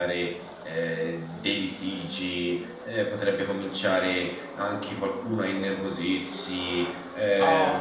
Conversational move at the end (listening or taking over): taking over